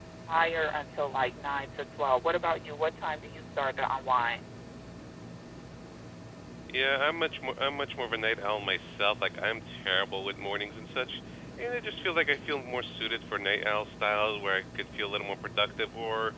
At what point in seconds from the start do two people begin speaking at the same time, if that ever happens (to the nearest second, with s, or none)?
none